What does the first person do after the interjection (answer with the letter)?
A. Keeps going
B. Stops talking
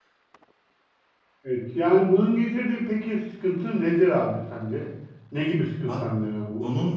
B